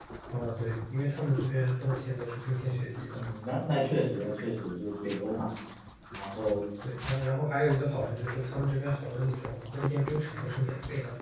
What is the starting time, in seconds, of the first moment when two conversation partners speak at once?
none

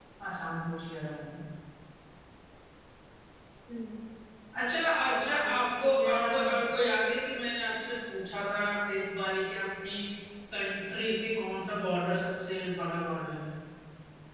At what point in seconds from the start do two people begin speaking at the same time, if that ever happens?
5.1 s

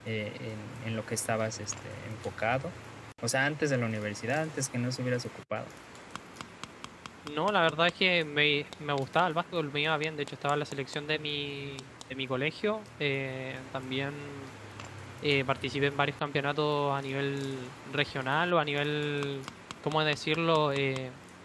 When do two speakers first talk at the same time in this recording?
none

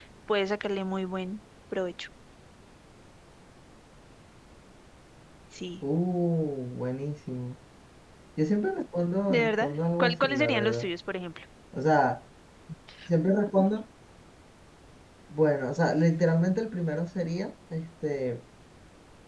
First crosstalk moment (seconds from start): 9.3 s

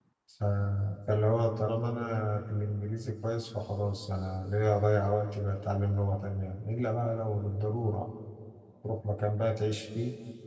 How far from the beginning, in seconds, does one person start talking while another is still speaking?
none

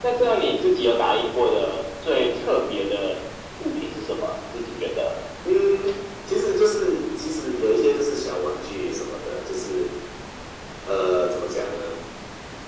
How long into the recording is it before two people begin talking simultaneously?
none

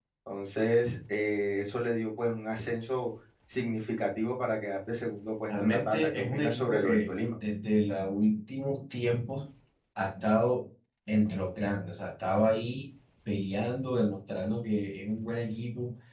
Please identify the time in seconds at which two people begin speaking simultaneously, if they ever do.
5.5 s

